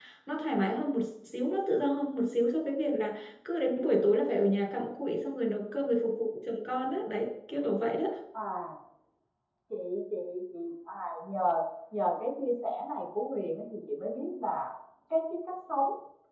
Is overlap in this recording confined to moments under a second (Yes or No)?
Yes